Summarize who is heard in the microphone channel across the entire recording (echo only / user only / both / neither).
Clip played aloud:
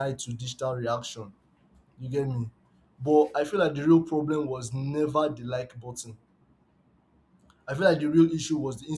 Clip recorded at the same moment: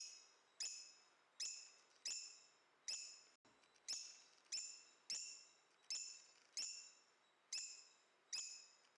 neither